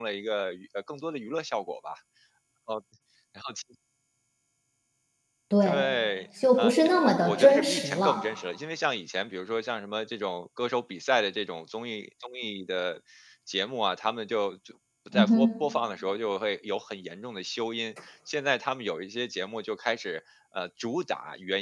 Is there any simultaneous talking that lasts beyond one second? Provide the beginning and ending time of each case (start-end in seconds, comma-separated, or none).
6.6-8.2